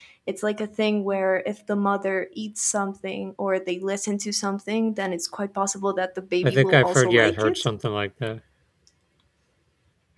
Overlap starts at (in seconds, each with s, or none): 6.4 s